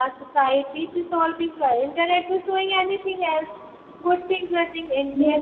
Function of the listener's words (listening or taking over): taking over